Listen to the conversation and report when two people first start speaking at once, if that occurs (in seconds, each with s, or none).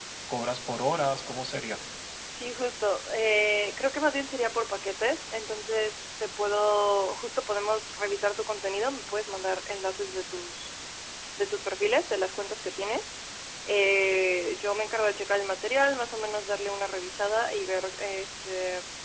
none